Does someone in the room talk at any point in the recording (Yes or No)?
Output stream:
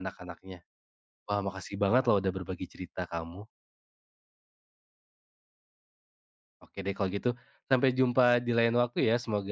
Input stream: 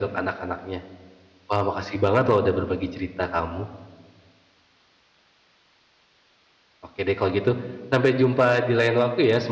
No